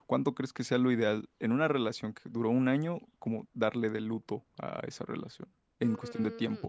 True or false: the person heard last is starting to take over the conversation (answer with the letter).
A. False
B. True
B